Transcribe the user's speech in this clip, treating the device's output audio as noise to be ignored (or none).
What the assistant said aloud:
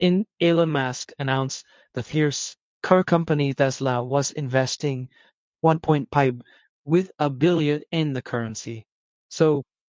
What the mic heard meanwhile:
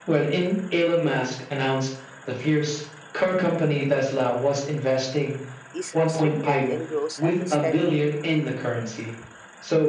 is restricted and grows at a steadily